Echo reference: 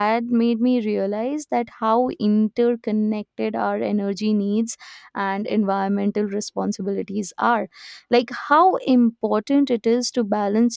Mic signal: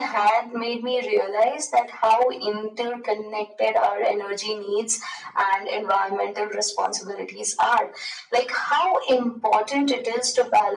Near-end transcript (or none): none